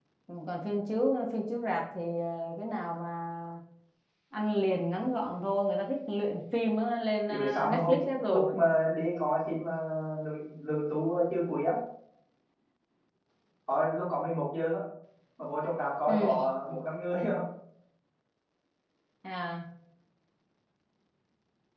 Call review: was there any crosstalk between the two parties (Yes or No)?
Yes